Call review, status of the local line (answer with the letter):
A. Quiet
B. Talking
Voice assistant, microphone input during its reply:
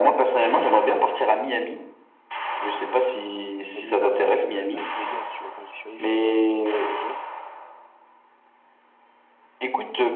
B